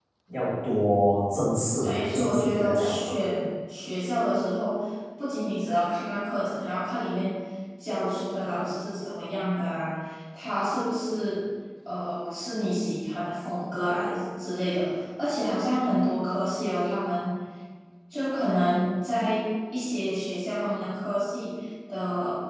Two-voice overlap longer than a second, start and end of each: 1.8-3.1

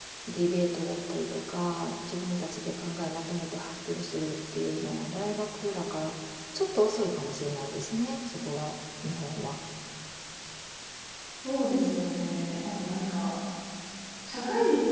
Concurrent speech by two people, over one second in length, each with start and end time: none

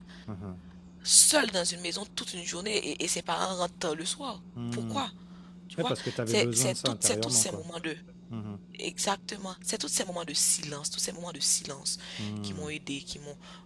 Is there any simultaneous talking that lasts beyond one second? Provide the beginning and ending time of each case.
5.8-7.7

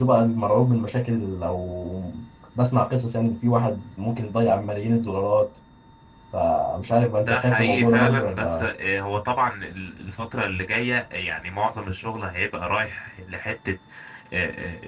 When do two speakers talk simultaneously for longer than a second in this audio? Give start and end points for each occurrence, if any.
7.3-8.7

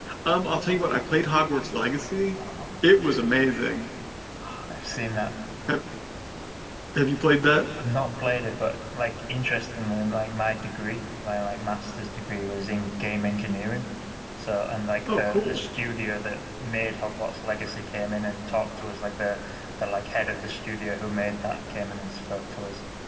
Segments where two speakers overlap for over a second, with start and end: none

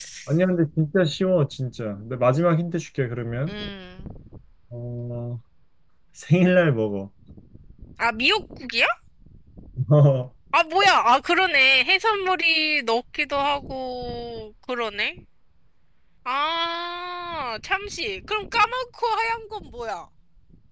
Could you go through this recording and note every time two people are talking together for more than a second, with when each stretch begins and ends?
none

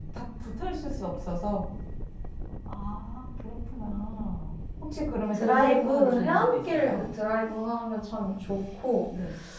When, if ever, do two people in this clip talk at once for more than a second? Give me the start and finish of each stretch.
5.3-7.0

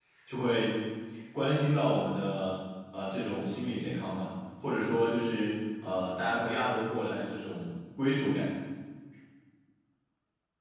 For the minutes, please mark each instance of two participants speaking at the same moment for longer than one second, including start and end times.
none

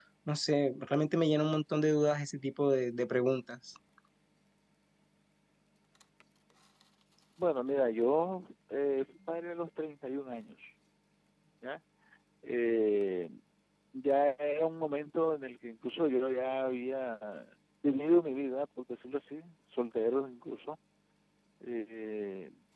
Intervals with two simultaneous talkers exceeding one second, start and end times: none

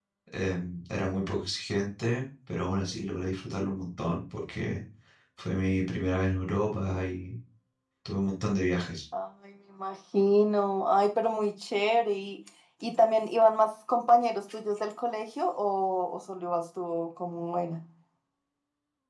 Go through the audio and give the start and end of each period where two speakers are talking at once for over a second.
none

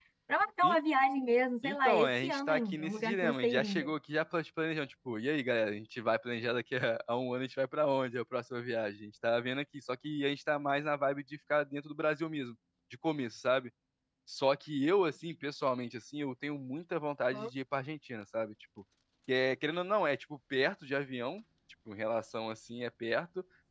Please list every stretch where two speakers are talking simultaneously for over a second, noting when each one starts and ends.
1.6-3.9

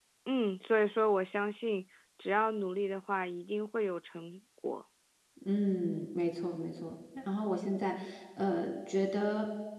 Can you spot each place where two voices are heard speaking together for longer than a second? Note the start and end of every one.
none

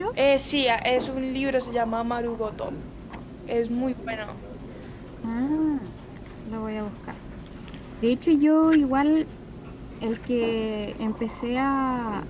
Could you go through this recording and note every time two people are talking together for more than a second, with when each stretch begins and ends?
none

